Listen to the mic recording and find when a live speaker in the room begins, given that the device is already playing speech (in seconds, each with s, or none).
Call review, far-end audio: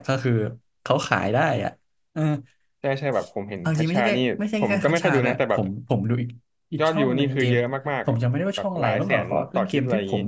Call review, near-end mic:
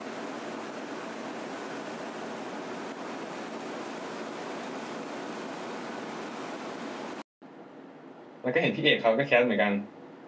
8.4 s